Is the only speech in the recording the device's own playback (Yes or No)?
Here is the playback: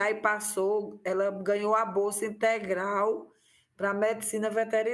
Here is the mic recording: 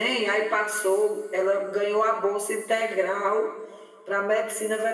Yes